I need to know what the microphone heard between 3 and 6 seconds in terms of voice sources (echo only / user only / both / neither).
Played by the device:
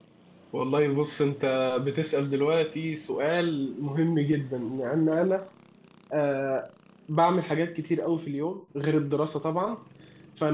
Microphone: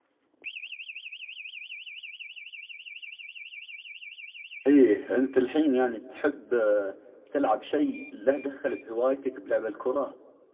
user only